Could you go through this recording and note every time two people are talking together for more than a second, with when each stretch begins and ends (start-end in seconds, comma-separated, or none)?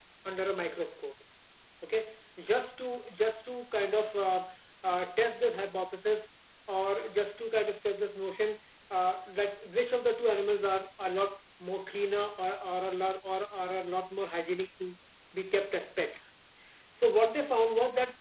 none